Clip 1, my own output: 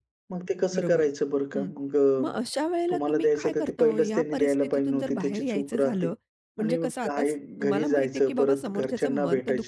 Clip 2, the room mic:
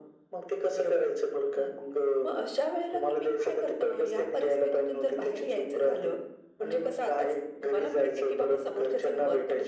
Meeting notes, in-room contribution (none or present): none